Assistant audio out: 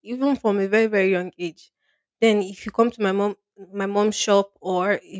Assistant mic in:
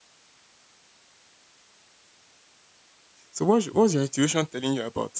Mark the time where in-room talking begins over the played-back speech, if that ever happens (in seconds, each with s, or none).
3.3 s